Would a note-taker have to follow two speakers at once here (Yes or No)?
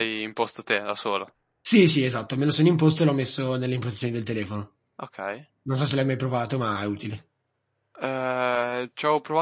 No